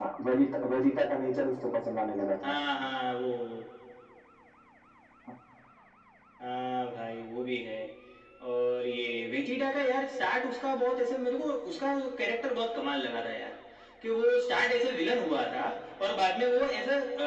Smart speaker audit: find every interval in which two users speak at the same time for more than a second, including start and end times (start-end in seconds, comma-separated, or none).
none